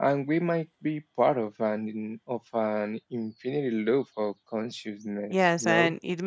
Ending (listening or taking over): taking over